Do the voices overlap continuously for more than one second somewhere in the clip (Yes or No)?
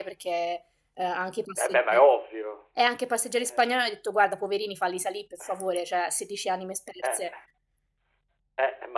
No